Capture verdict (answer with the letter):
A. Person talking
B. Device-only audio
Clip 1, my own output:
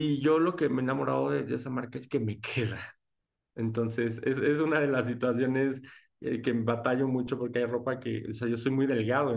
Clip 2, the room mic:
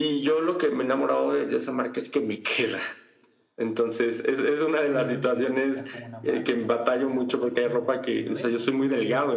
A